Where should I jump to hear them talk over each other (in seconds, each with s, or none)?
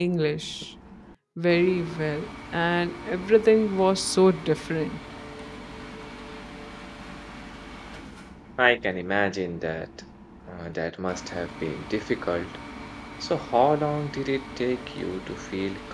none